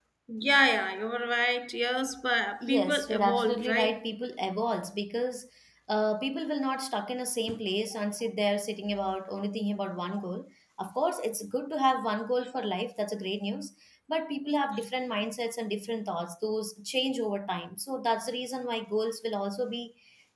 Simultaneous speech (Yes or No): Yes